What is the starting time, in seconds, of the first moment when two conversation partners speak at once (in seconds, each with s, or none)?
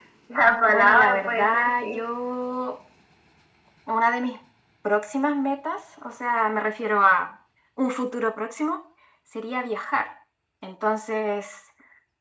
0.7 s